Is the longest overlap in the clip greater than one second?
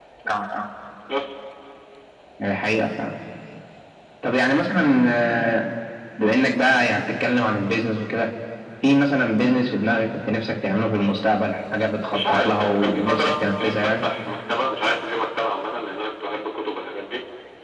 Yes, from 12.1 s

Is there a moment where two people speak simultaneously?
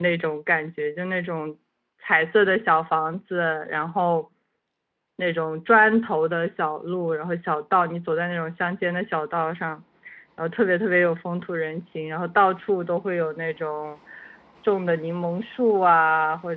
No

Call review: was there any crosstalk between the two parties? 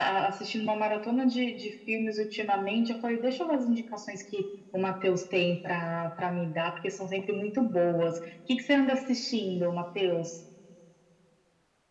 No

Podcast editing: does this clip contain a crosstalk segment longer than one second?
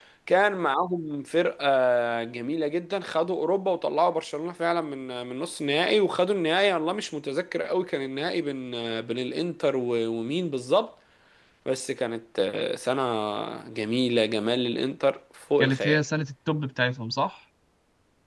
No

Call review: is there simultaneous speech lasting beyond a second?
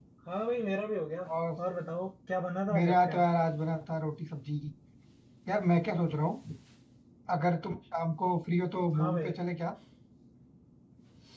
No

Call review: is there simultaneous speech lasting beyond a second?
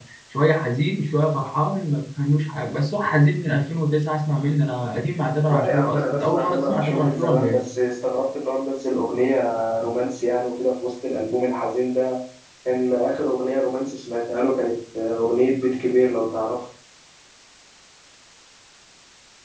Yes, from 5.5 s

